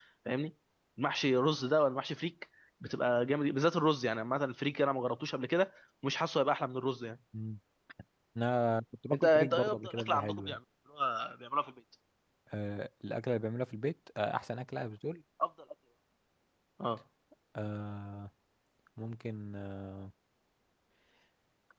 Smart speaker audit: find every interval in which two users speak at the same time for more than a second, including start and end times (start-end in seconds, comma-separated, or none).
9.1-10.6